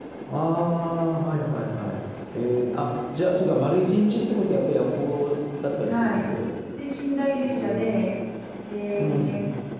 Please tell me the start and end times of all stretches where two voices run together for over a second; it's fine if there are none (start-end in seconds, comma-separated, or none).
none